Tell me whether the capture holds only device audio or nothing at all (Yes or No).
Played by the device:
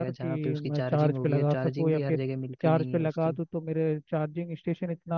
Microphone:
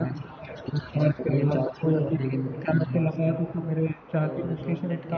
No